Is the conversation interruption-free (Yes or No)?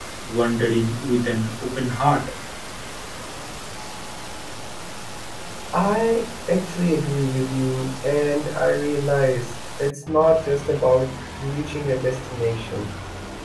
Yes